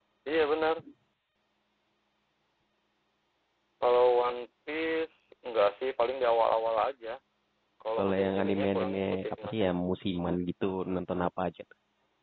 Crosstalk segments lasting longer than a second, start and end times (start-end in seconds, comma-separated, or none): 8.0-9.5